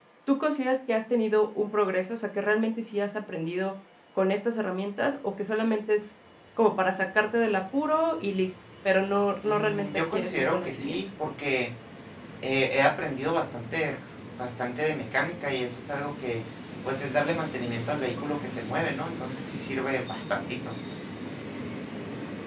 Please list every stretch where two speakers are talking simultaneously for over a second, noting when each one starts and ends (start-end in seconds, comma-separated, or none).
9.4-11.0